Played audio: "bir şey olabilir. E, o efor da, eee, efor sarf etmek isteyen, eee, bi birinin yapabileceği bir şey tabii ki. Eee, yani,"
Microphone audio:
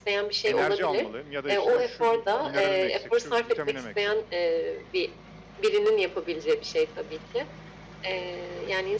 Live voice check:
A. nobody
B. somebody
B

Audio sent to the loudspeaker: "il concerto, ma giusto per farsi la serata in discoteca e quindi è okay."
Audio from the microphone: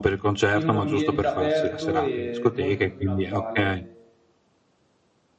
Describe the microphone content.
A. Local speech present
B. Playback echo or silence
A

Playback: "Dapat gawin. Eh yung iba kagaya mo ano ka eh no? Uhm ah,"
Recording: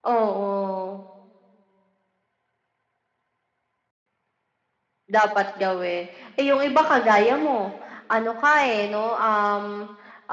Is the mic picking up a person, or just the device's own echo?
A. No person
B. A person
A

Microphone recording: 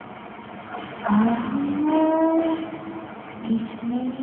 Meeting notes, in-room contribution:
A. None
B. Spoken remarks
B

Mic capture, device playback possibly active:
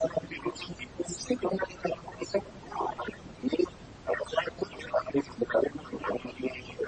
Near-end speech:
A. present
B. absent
B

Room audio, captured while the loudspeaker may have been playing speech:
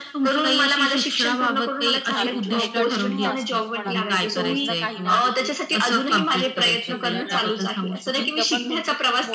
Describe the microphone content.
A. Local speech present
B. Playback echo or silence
A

